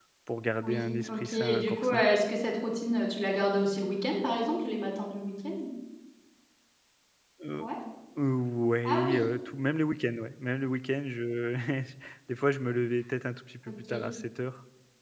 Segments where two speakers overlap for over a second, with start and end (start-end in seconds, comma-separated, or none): 0.6-2.0